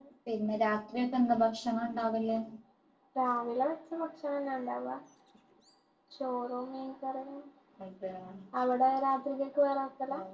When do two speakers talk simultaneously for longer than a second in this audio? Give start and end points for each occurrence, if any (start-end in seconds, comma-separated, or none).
none